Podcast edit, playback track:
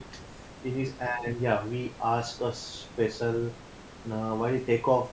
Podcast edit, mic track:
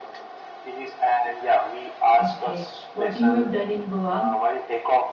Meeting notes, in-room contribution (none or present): present